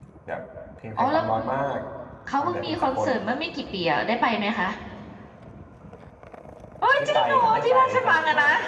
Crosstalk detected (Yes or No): Yes